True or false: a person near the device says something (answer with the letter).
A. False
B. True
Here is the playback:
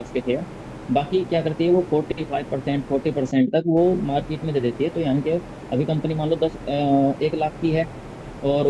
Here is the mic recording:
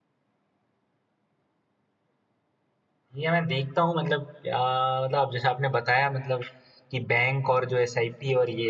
B